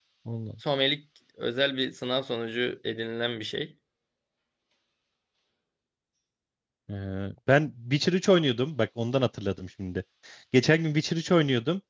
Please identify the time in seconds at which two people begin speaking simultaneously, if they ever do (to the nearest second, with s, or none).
none